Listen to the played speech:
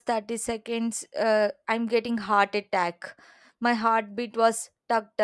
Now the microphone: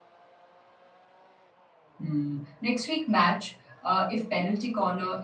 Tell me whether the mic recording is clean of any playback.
Yes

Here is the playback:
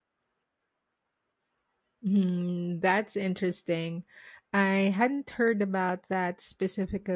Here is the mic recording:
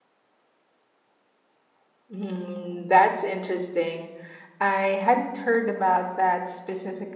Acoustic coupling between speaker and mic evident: Yes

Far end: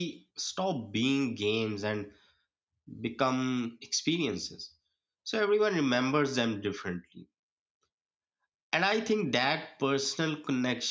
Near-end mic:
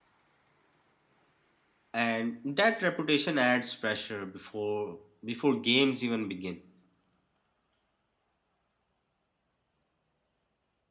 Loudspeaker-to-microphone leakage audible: No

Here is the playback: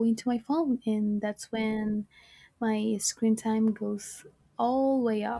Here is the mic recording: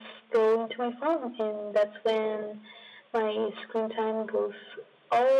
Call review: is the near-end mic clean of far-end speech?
No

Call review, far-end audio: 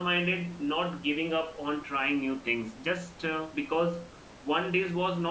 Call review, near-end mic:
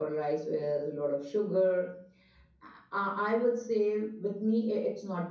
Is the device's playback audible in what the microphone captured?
No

